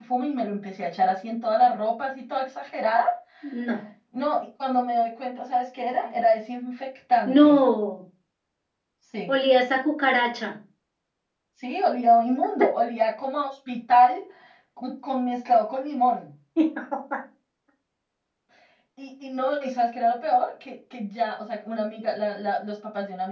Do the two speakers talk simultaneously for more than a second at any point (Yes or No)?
No